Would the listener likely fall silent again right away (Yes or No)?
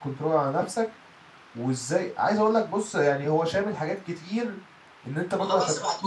Yes